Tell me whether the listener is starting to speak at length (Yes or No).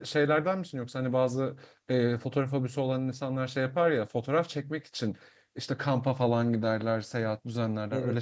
Yes